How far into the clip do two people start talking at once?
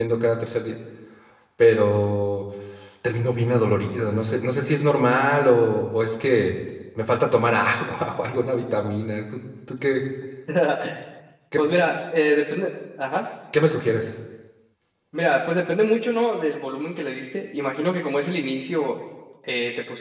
none

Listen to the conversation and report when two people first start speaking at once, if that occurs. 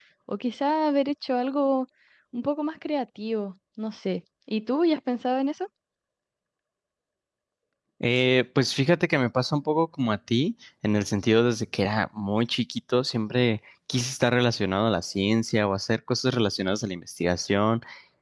none

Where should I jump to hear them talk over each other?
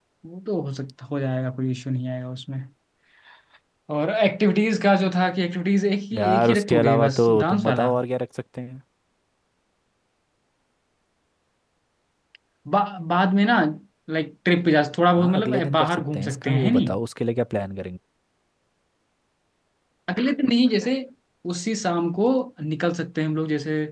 6 s

